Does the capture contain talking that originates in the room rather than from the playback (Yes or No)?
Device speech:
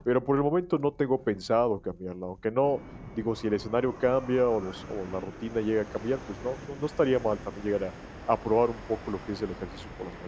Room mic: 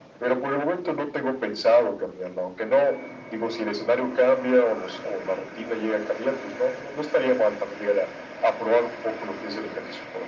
No